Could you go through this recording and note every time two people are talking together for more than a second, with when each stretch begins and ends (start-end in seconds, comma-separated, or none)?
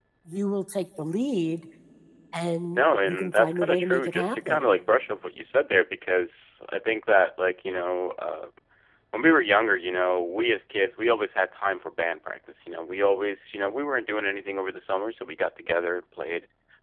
2.7-4.6